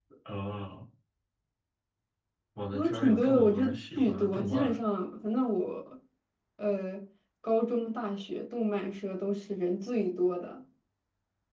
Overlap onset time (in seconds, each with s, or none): 2.7 s